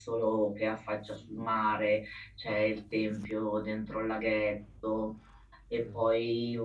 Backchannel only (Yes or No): Yes